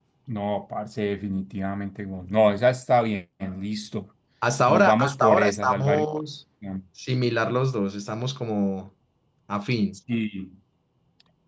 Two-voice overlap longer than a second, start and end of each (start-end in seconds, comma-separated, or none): 4.7-6.0